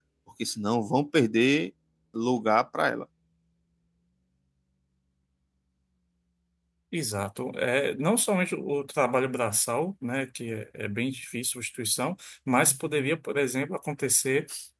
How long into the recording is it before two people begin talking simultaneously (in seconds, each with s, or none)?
none